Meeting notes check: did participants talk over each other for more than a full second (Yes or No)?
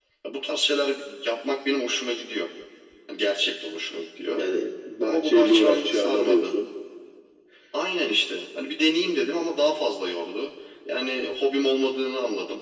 Yes